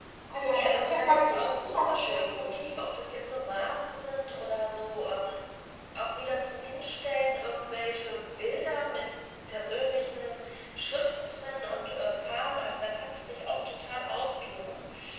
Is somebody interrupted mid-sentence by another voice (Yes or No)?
Yes